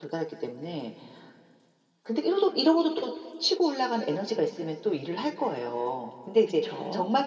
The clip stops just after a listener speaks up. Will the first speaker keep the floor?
Yes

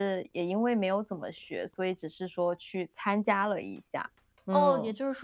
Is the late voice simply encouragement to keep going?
No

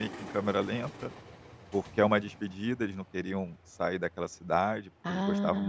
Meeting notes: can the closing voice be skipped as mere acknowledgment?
Yes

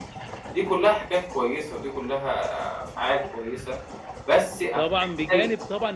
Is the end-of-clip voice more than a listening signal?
Yes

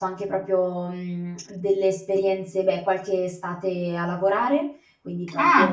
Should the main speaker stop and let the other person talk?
Yes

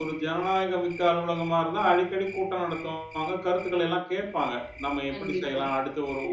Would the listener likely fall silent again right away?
Yes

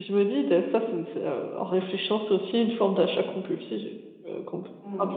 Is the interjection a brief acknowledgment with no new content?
No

